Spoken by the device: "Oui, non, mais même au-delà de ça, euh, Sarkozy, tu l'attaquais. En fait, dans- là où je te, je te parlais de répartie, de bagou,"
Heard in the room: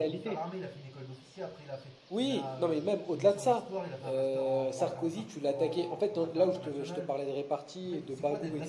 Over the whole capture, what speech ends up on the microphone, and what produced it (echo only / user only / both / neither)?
both